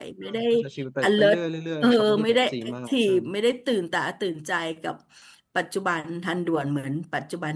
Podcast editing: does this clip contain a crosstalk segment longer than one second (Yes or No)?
Yes